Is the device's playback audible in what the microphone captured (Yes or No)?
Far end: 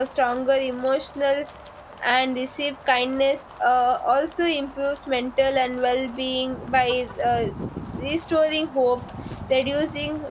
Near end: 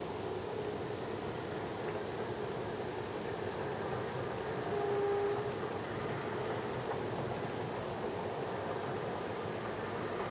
No